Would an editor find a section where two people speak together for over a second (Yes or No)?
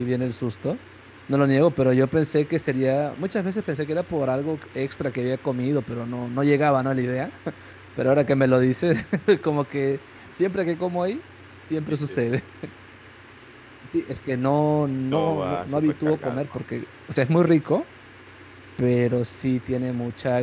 Yes